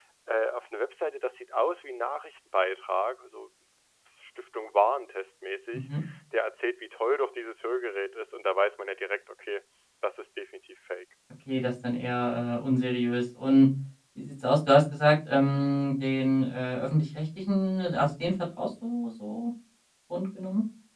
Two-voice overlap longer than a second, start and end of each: none

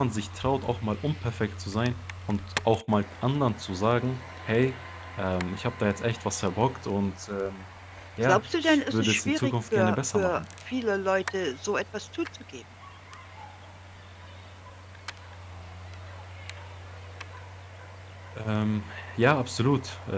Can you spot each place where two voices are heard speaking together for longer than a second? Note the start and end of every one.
8.2-10.4

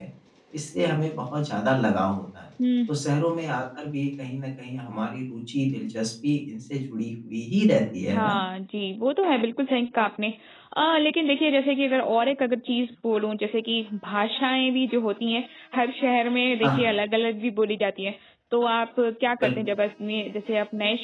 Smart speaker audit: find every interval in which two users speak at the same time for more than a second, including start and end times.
none

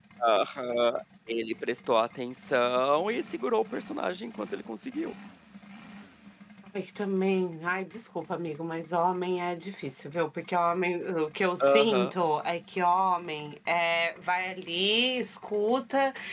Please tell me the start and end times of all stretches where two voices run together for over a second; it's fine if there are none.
none

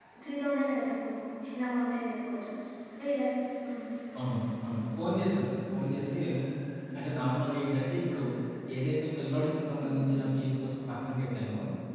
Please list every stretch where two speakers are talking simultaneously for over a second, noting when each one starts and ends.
none

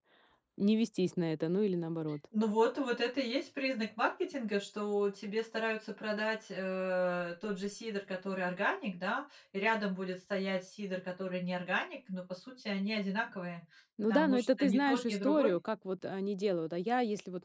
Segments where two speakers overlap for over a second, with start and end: 14.0-15.6

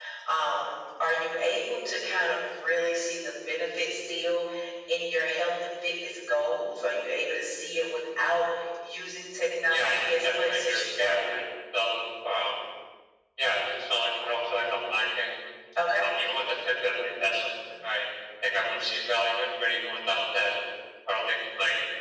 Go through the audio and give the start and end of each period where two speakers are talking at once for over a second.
9.7-11.2

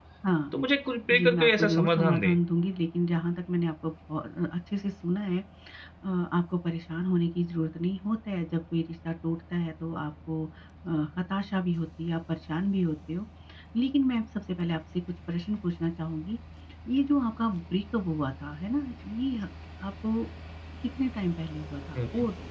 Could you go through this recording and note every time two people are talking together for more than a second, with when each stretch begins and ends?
1.1-2.4

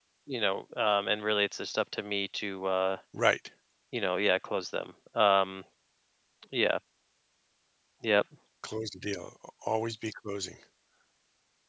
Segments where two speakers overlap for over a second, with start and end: none

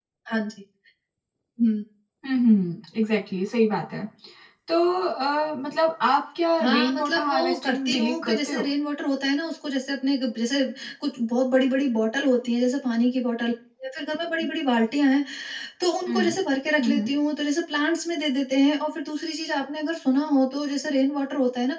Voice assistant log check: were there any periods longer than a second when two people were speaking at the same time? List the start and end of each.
6.6-8.7

